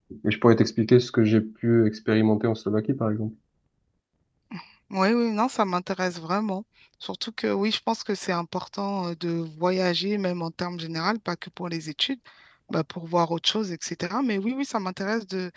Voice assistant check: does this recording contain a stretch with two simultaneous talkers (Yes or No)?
No